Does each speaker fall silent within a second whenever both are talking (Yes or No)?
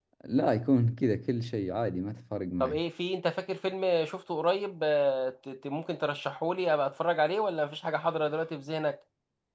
Yes